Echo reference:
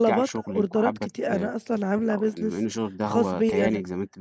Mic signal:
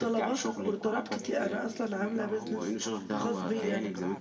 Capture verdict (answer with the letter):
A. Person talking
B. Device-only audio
A